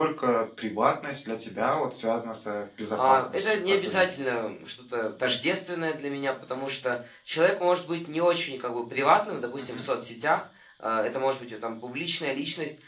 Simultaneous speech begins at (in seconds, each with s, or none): 3.0 s